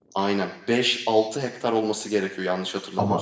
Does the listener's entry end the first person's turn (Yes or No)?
Yes